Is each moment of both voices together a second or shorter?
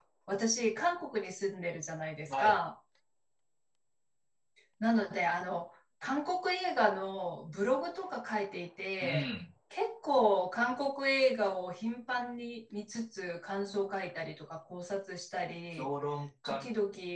Yes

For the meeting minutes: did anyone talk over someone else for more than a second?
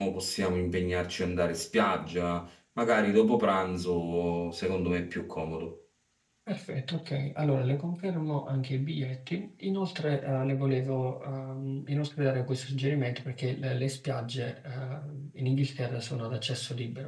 No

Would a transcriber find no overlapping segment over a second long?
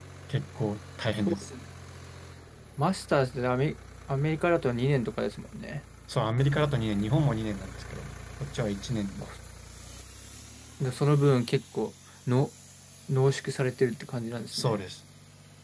Yes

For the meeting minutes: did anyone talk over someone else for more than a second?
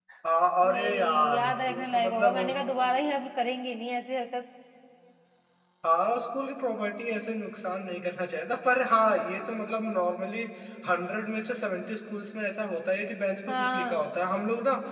Yes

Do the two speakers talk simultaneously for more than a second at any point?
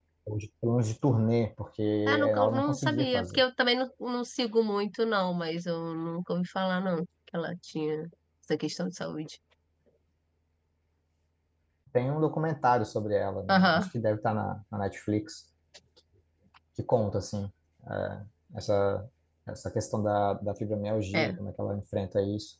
Yes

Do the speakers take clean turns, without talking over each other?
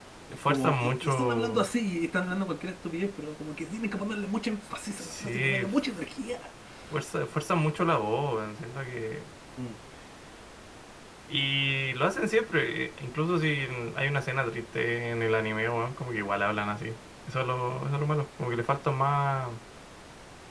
No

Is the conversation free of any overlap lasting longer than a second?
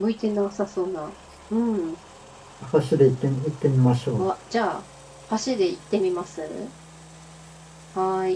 Yes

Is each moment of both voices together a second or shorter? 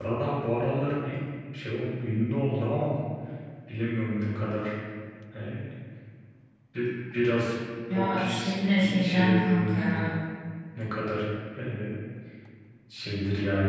No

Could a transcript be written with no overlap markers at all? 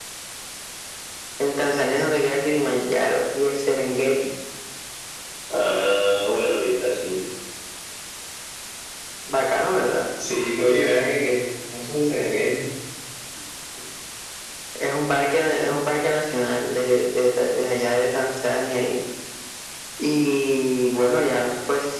Yes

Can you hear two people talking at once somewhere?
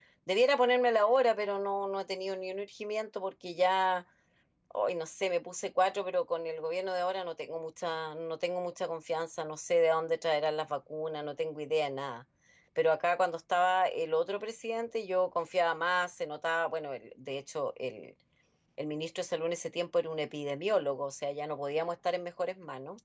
No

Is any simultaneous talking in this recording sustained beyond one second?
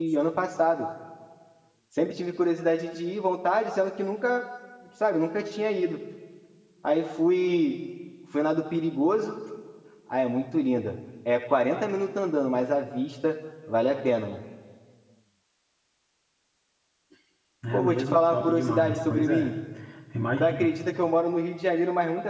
Yes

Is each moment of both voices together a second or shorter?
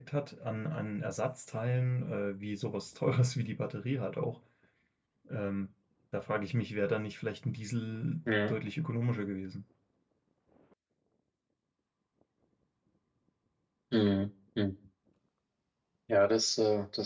Yes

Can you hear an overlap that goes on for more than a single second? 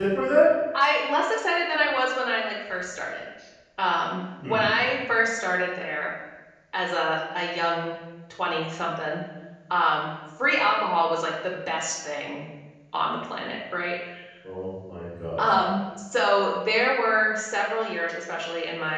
No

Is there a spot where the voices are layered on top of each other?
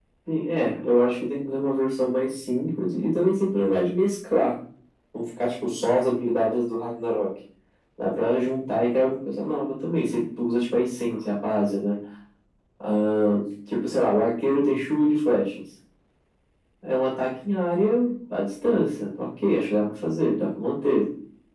No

